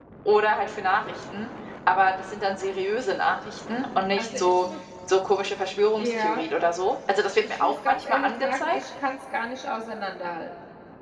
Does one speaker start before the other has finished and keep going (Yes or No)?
Yes